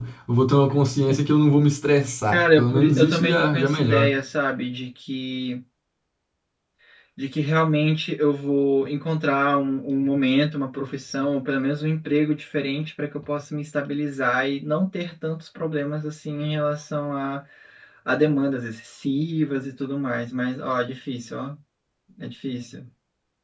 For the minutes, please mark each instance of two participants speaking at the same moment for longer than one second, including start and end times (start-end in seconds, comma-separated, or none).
2.3-4.2